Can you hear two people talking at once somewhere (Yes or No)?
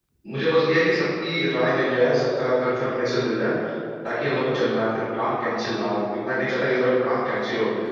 No